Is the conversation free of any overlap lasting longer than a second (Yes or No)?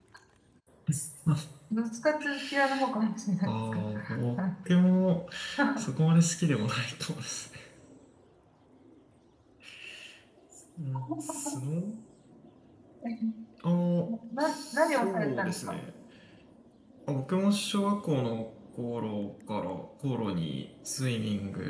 No